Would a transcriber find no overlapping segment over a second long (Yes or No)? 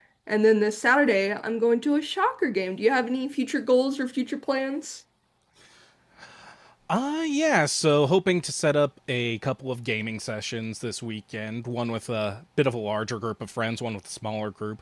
Yes